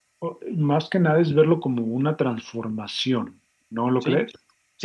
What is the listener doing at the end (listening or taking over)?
taking over